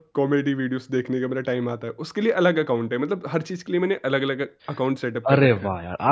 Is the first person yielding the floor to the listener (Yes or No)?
Yes